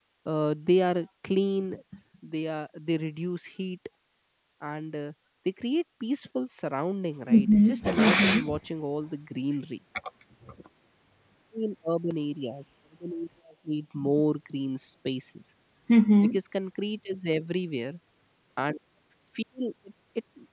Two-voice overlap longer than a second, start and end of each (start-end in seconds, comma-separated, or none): 7.3-8.5